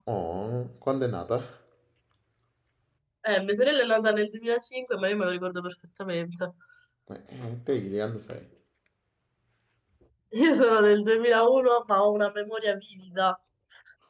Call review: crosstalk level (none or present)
none